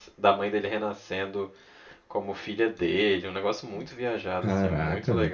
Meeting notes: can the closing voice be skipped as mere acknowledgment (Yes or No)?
No